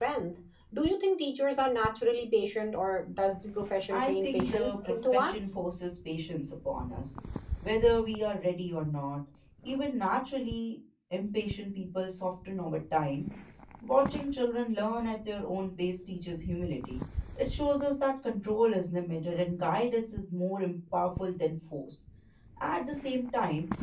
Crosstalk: present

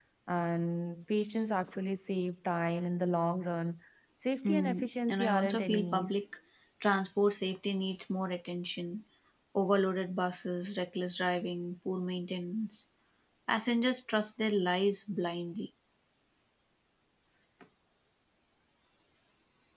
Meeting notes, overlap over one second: present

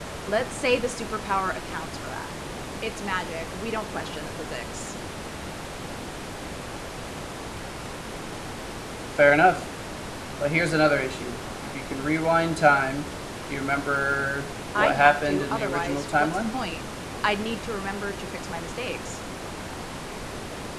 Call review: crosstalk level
present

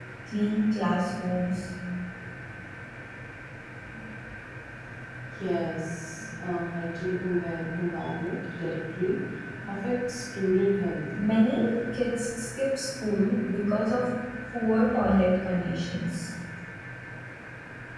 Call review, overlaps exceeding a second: none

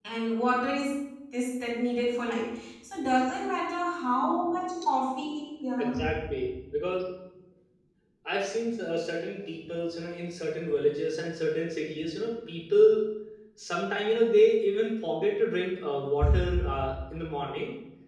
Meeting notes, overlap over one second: none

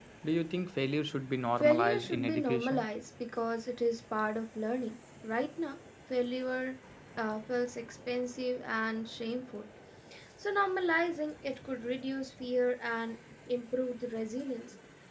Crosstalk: present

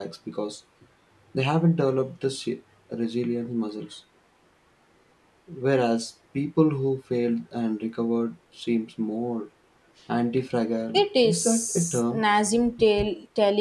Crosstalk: present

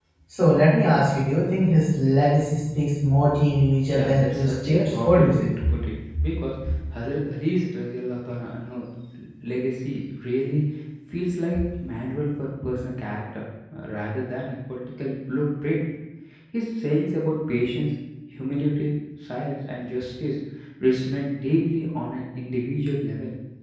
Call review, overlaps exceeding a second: present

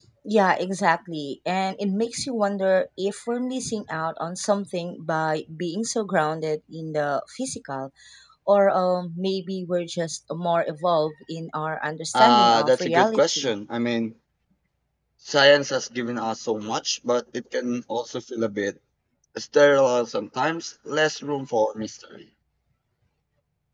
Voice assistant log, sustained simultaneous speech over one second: present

